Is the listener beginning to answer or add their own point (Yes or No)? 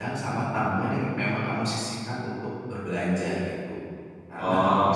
No